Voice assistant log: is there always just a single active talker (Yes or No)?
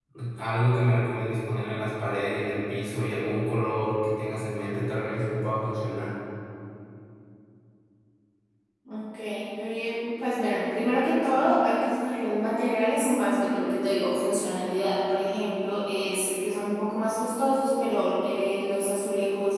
Yes